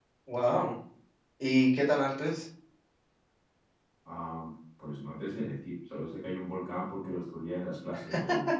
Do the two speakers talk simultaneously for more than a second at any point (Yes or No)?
No